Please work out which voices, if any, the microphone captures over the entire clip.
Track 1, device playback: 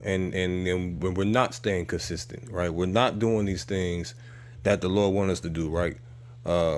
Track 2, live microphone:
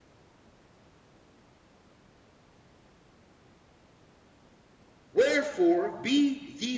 user only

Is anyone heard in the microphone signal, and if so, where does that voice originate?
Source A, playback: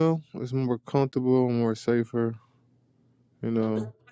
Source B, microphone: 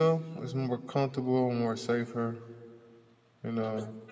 echo only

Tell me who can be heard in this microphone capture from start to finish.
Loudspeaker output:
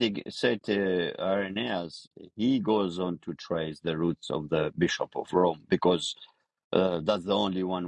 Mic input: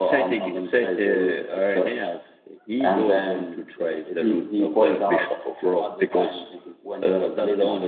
both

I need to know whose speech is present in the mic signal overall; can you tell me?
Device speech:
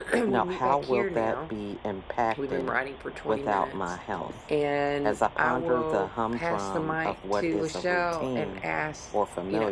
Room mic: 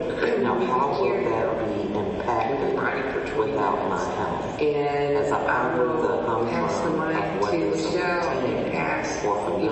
both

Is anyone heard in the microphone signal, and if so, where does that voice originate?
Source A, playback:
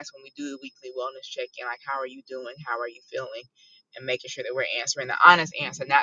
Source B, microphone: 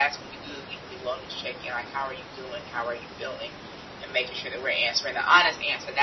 echo only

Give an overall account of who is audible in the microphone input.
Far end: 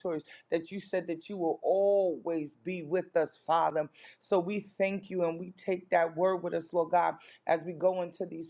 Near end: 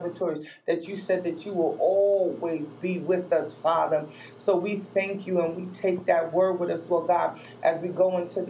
echo only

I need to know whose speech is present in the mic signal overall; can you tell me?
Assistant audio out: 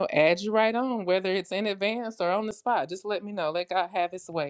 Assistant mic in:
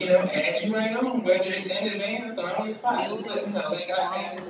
both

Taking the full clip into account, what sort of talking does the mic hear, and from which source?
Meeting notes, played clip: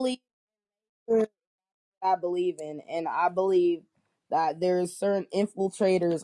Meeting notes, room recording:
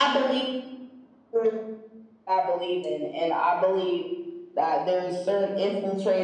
echo only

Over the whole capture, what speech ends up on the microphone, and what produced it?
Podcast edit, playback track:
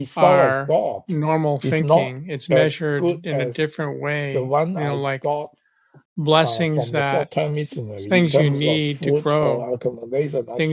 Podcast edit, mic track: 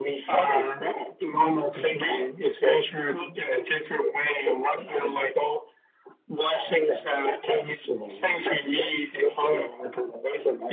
echo only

